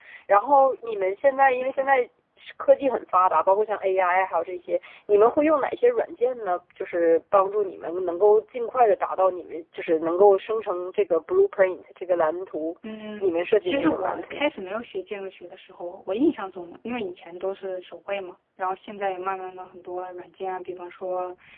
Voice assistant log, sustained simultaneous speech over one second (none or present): present